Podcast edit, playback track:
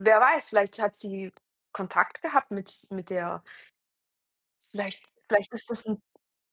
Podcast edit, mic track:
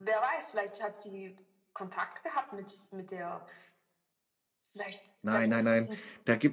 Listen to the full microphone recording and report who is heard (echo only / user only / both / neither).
both